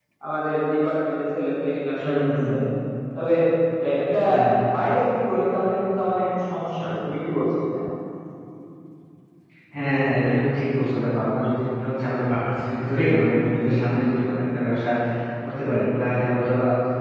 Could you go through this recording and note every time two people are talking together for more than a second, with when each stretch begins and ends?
none

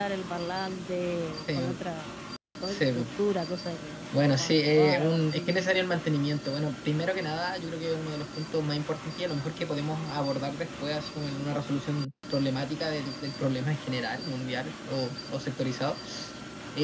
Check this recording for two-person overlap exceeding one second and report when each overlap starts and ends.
4.2-5.6

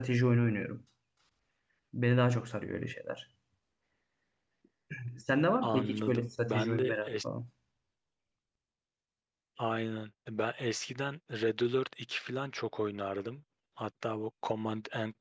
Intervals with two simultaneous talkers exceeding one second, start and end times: 5.6-7.1

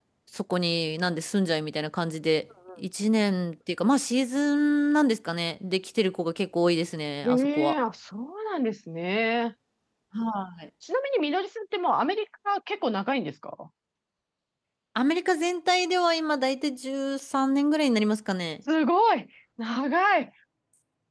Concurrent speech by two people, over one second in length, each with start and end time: none

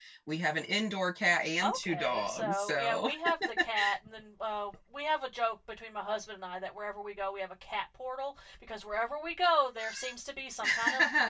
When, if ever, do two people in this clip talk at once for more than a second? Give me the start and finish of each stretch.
1.8-3.1

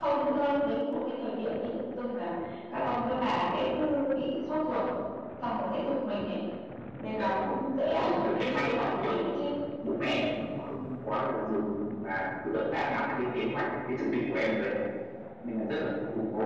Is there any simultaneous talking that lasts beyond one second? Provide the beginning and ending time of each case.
8.0-9.2

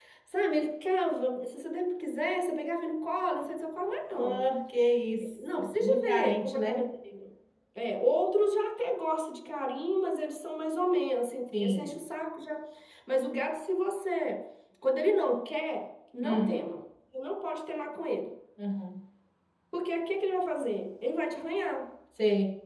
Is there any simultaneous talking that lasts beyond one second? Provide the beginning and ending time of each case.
5.4-6.8

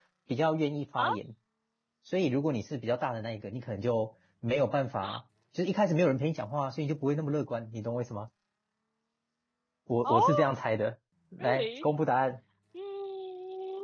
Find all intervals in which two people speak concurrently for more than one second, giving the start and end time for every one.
none

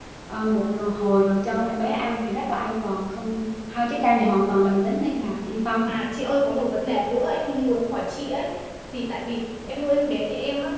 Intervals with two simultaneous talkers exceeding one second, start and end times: none

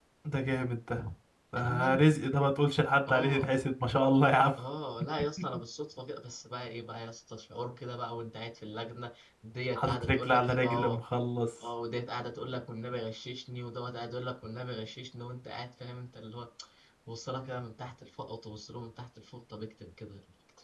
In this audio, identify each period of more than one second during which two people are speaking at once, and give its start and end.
9.8-11.0

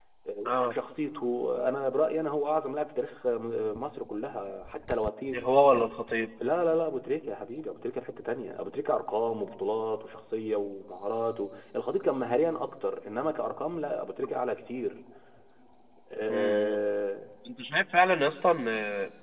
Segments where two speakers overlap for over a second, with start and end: none

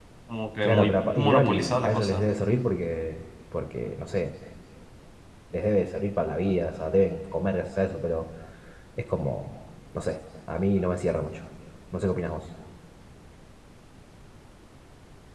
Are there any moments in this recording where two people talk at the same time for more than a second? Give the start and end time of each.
0.6-2.2

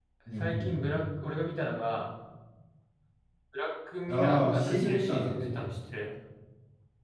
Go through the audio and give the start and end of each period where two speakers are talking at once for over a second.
4.1-5.6

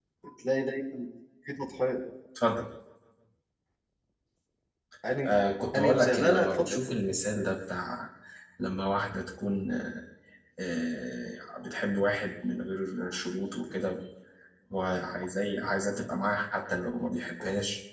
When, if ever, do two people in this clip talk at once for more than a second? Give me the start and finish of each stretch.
5.8-7.0

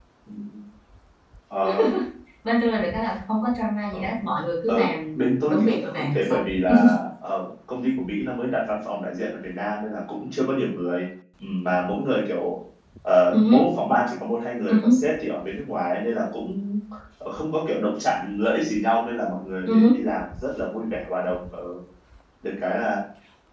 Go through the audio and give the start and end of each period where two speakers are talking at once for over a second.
5.2-6.4

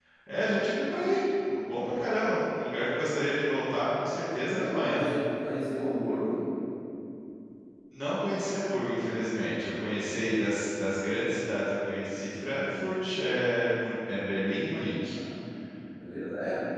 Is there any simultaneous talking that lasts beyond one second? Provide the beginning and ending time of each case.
none

